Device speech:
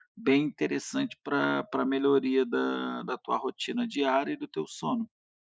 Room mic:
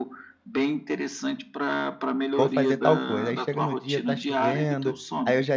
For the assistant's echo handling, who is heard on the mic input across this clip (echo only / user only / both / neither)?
both